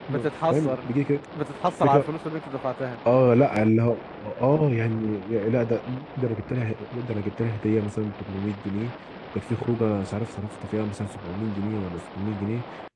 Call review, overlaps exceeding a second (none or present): none